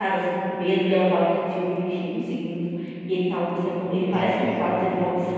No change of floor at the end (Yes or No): Yes